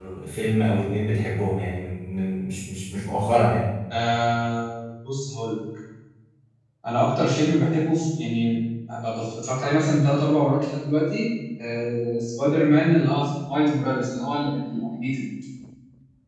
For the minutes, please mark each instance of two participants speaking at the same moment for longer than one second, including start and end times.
none

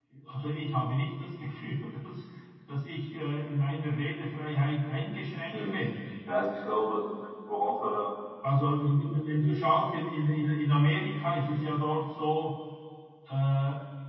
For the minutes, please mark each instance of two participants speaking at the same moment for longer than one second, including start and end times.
none

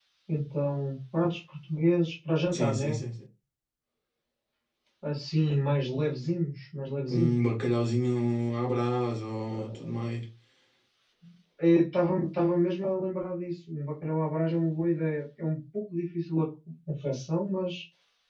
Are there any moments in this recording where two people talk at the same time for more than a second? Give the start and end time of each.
none

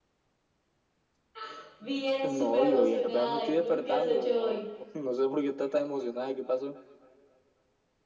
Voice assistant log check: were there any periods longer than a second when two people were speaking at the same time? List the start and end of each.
2.2-4.6

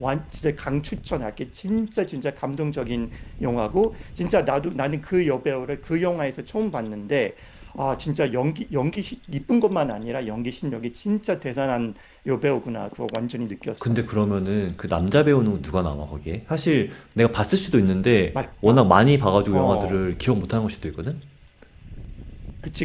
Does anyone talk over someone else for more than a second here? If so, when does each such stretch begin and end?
none

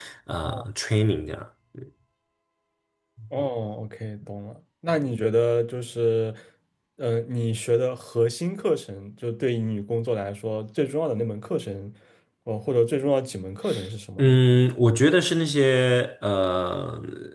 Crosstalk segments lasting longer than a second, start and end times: none

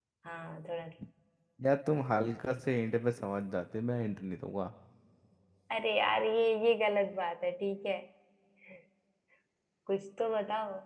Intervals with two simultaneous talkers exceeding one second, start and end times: none

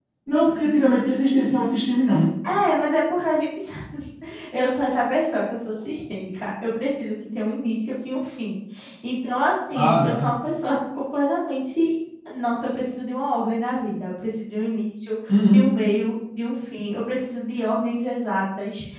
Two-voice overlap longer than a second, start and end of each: none

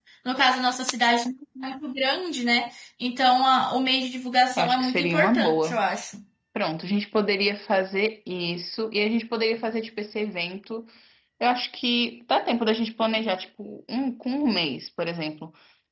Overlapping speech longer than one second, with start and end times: 4.6-5.8

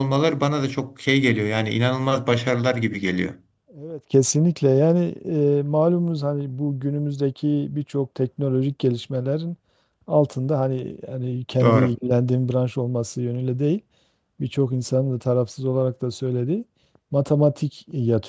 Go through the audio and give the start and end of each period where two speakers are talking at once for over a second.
none

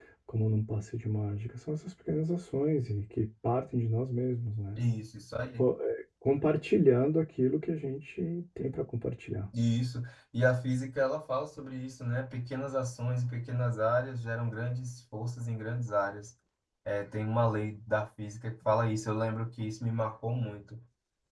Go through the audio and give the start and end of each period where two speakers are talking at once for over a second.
none

